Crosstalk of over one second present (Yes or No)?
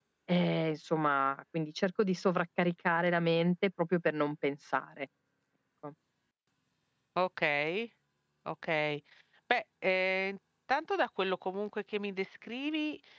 No